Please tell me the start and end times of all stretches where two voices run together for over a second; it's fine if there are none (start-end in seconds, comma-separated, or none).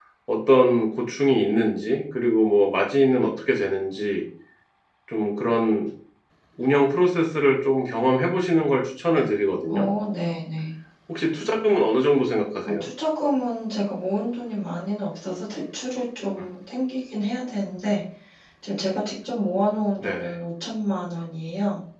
none